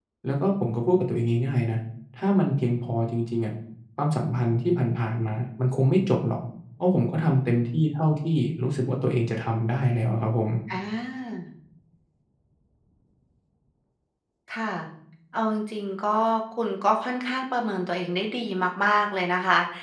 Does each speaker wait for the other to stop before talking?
Yes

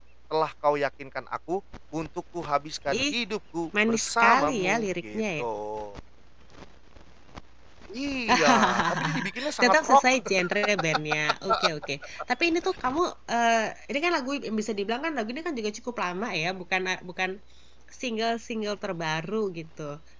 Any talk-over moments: Yes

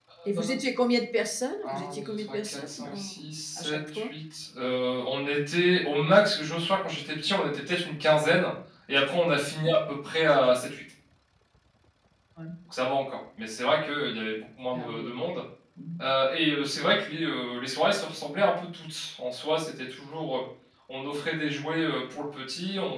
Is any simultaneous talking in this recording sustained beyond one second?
Yes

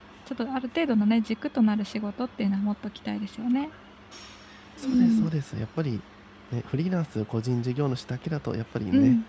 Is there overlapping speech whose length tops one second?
No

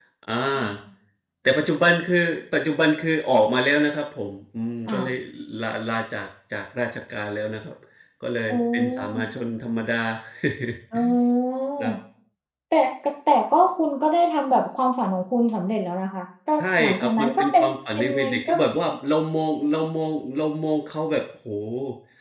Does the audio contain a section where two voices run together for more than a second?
Yes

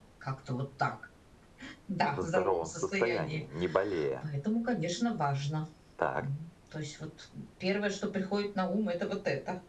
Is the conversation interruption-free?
No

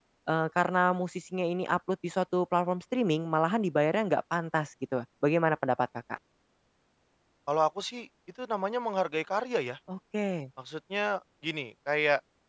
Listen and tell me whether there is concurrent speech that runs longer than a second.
No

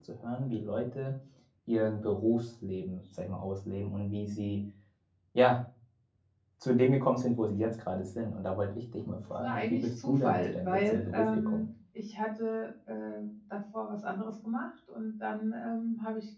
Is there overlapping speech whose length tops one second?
Yes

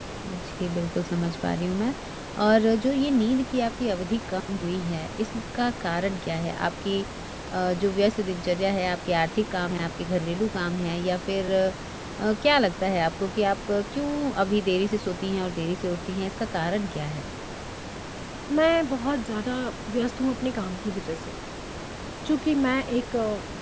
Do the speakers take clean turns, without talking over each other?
Yes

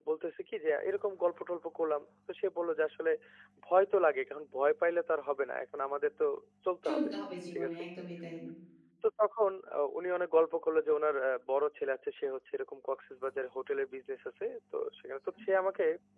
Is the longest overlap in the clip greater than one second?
No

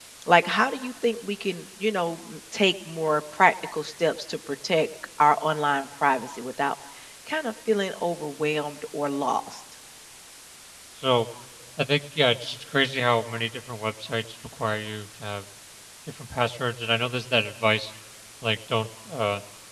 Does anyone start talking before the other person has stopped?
No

